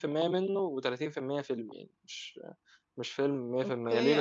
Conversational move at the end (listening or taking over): taking over